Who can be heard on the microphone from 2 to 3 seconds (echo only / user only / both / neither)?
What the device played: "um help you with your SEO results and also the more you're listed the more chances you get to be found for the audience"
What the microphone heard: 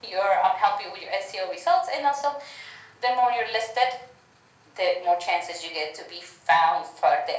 echo only